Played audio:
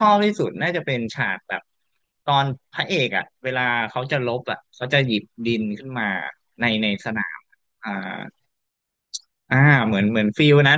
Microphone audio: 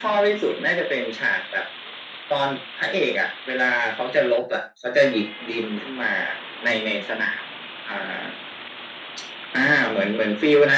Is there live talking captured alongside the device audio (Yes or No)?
No